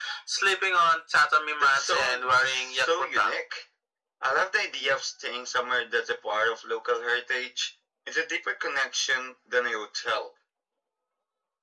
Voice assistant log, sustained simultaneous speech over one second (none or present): present